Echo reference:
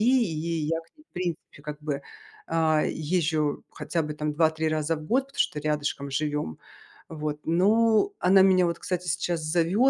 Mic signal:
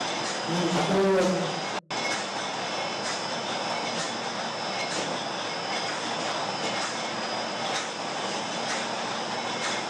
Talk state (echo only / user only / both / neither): user only